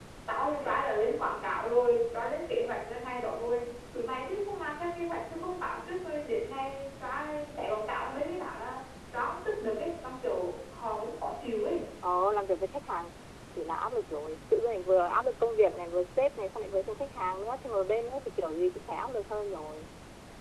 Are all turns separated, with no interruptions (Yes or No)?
Yes